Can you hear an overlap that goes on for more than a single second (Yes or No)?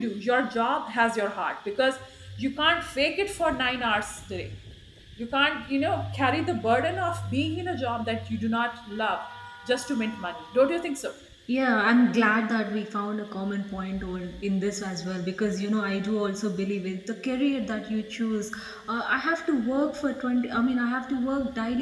No